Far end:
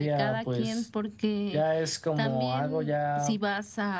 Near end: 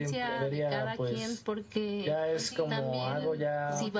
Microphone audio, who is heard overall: both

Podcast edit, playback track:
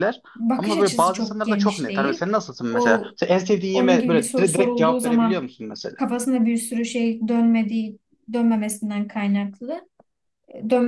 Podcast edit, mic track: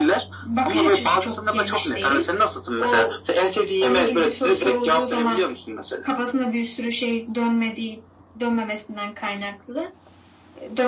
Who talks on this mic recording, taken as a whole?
echo only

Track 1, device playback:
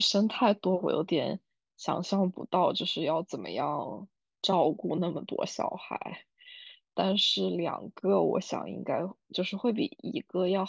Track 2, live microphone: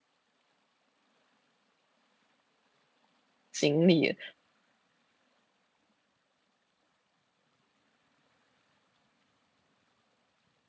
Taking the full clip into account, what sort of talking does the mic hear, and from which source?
user only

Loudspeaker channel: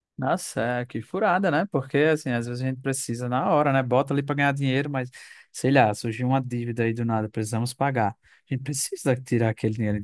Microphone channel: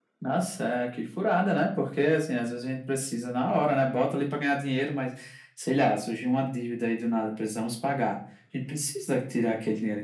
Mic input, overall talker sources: echo only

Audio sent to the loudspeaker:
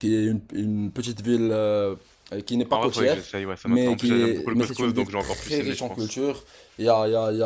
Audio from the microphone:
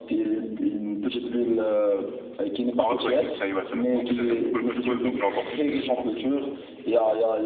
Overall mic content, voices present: echo only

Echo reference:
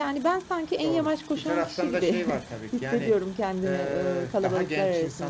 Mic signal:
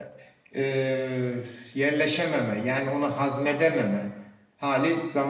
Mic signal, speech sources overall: user only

